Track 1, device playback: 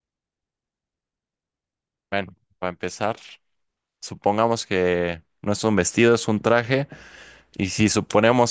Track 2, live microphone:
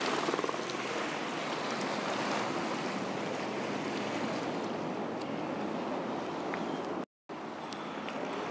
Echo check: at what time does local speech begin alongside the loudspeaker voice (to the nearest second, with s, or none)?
none